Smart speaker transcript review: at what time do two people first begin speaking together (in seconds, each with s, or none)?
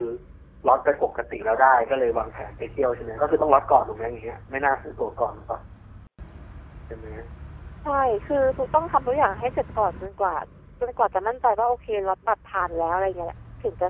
none